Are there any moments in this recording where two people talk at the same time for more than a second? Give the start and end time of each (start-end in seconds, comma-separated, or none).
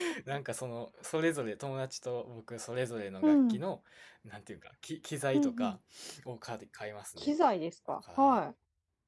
none